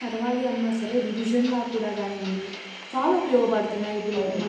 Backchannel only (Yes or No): No